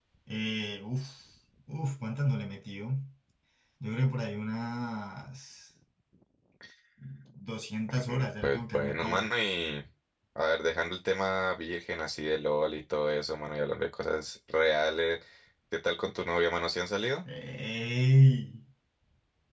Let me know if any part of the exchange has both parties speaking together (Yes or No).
Yes